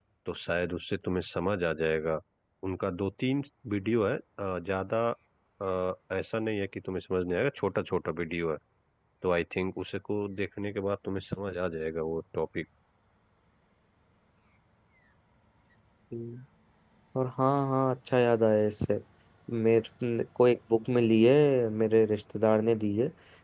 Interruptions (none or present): none